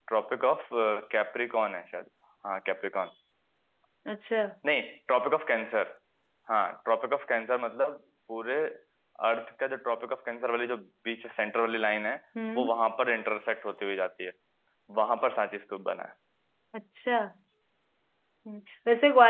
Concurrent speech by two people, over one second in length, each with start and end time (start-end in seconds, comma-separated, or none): none